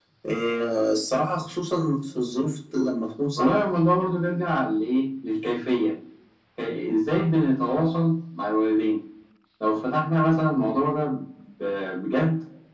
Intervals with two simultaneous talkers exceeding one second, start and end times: none

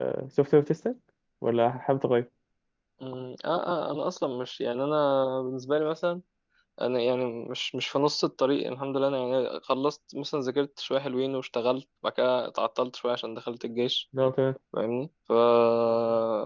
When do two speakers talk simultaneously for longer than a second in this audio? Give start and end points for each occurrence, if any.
none

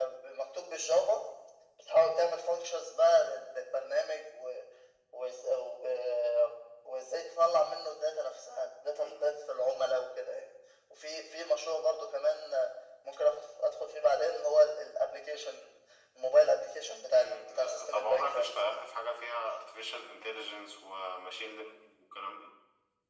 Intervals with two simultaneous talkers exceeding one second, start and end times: 17.1-18.8

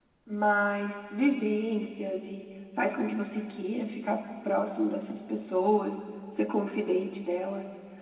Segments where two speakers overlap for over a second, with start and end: none

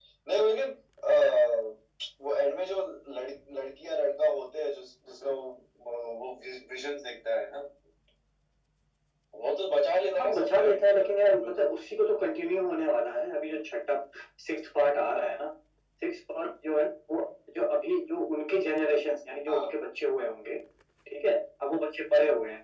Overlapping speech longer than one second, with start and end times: 10.2-11.7

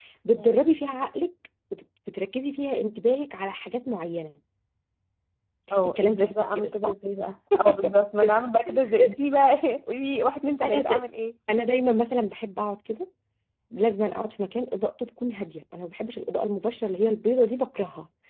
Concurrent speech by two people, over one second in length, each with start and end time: 5.7-6.9

